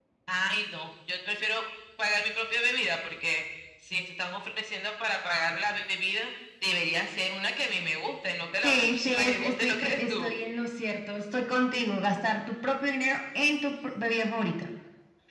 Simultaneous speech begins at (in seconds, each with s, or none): 8.6 s